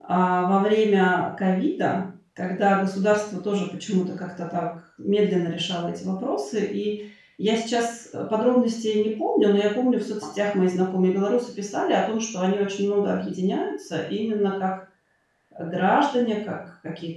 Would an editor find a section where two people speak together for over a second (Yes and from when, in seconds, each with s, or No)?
No